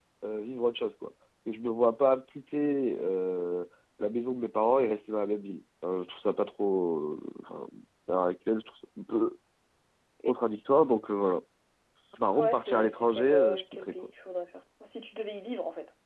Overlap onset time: 12.4 s

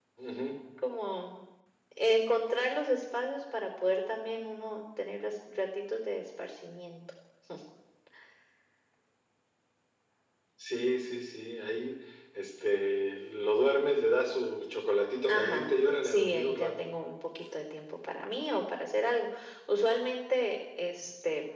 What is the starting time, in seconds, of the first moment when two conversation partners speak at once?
15.3 s

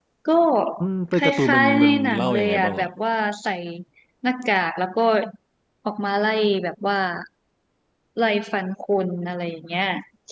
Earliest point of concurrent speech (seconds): 1.1 s

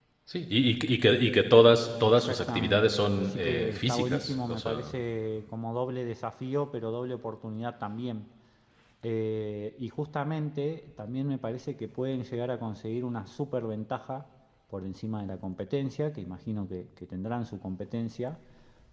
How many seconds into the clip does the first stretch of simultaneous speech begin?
2.0 s

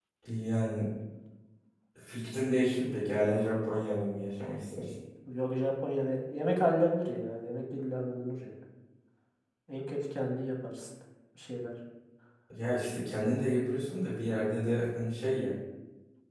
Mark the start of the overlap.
none

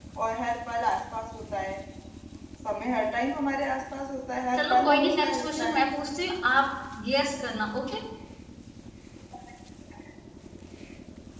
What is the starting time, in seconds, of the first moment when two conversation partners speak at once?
4.6 s

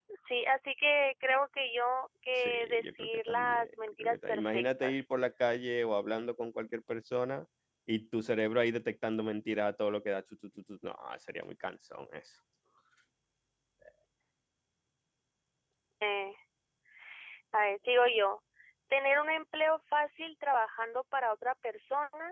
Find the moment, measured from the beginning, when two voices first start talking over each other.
2.4 s

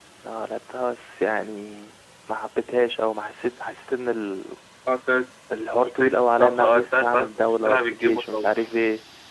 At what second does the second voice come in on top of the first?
5.8 s

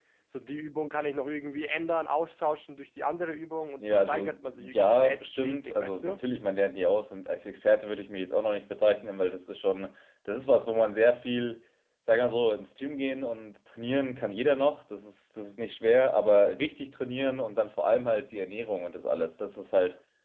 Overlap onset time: 3.8 s

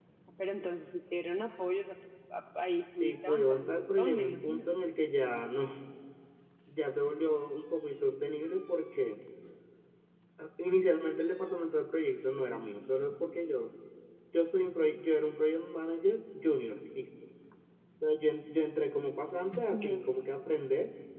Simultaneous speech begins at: 3.0 s

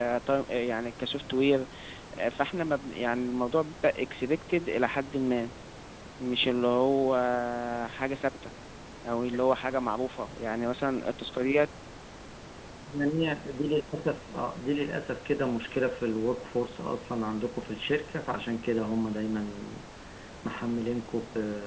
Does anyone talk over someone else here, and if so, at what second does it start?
none

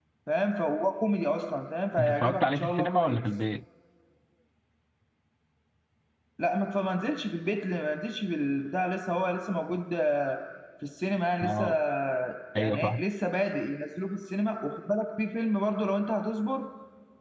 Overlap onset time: 2.0 s

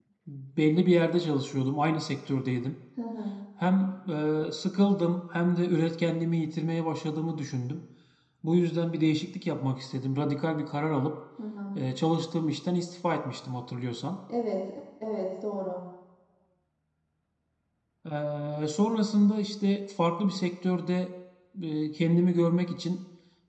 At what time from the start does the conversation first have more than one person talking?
none

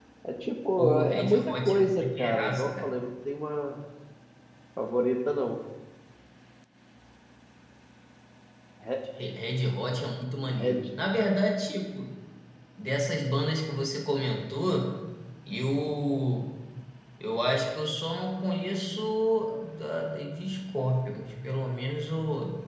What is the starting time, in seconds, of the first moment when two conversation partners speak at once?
0.8 s

